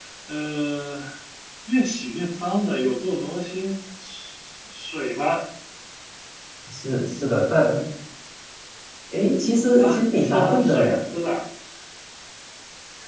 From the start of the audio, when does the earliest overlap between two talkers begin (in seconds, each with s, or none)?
9.8 s